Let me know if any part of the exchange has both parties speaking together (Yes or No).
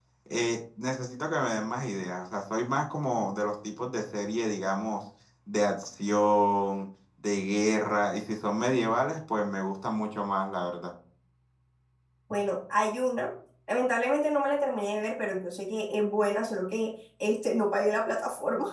No